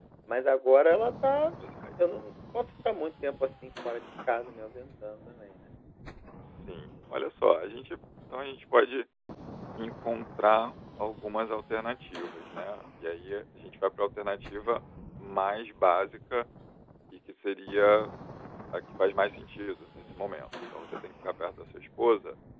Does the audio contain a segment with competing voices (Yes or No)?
No